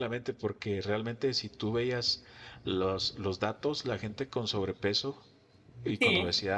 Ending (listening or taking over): listening